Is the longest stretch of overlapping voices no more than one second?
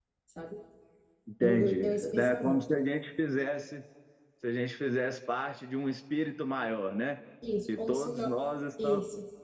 No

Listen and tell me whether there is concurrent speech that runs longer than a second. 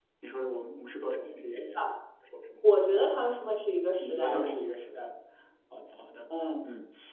No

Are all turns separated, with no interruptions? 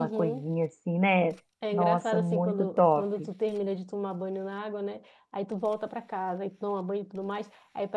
No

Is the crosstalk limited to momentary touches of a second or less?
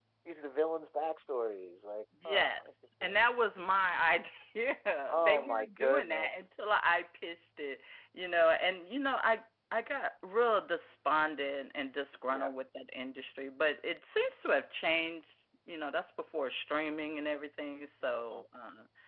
No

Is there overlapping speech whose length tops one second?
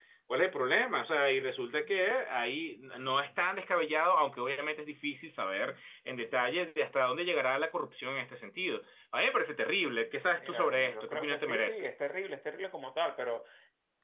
Yes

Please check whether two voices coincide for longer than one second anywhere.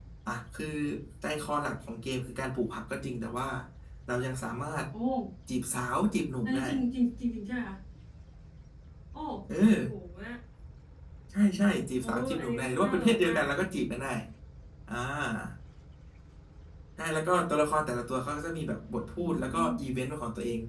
Yes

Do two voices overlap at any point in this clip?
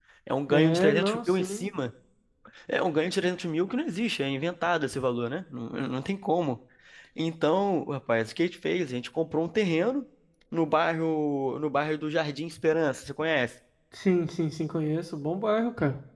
Yes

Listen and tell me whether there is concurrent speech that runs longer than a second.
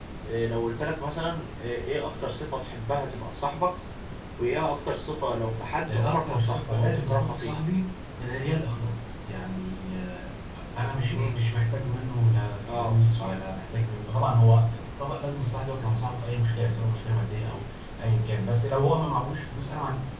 Yes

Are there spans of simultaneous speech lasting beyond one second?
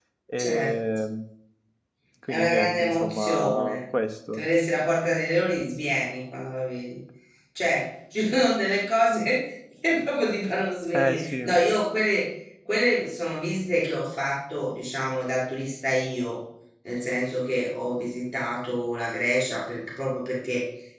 Yes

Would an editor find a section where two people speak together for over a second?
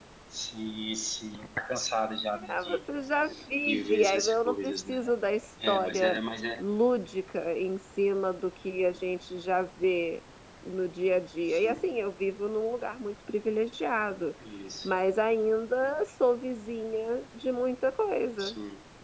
Yes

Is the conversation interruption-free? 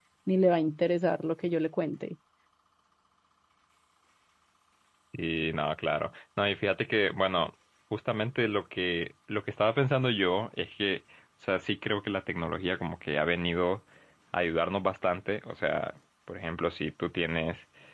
Yes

